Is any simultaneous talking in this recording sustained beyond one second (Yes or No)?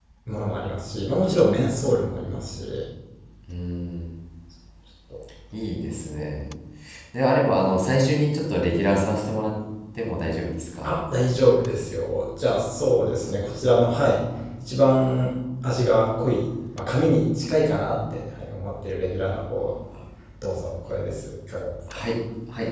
No